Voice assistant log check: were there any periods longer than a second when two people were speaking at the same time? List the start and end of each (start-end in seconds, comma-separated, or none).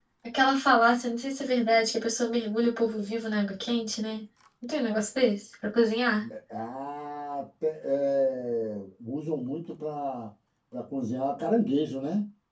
none